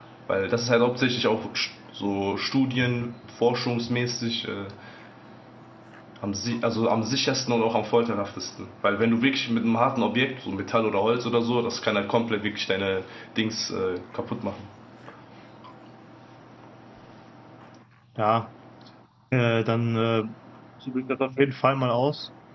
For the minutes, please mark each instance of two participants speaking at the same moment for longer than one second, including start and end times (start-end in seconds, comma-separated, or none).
none